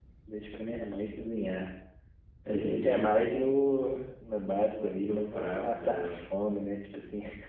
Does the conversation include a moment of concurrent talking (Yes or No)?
Yes